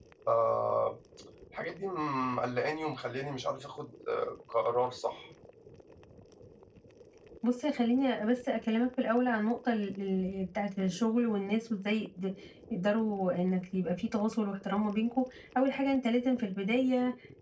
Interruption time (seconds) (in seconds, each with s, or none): none